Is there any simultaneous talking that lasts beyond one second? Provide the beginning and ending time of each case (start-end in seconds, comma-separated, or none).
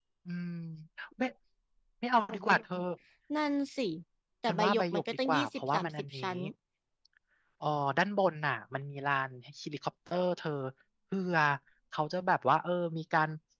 4.5-6.2